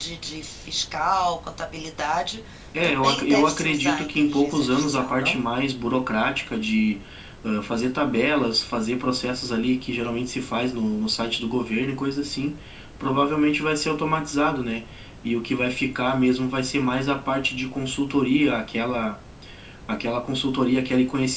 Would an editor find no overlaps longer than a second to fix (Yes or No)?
No